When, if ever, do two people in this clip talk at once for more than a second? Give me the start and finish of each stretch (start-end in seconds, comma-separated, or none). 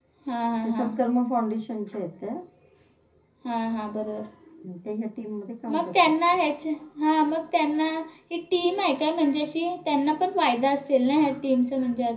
none